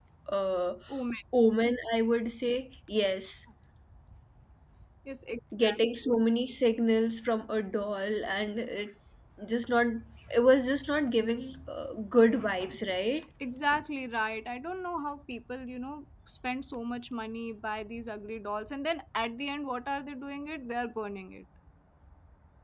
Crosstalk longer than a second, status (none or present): none